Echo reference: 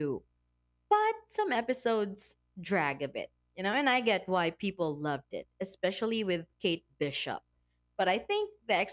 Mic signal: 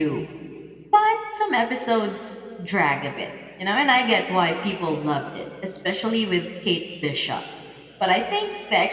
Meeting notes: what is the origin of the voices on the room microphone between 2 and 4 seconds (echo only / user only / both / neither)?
echo only